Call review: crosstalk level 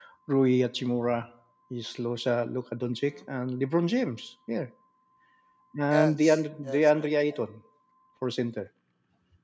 present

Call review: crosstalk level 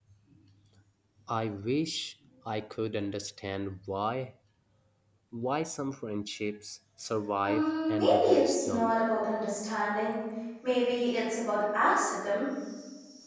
present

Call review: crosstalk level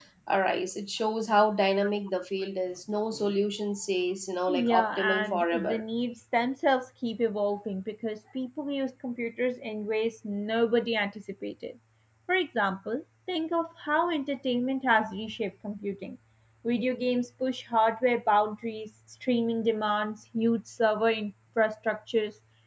present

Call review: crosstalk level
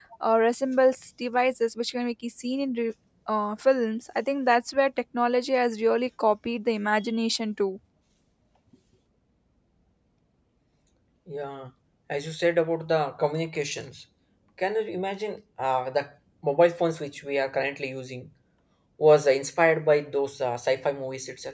none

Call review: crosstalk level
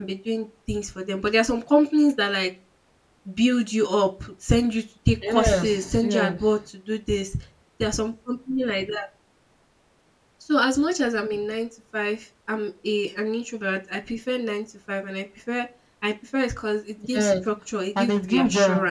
present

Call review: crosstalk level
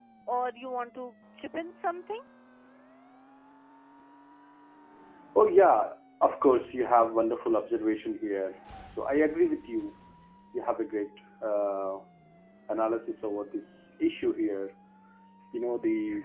none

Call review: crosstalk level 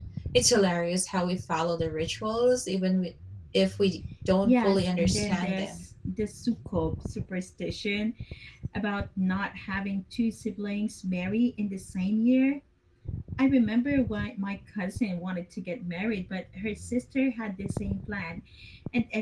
present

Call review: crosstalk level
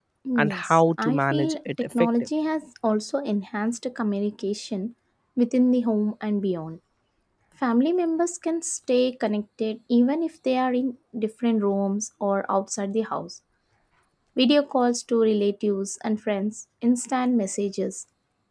present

